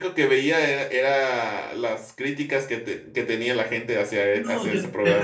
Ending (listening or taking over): taking over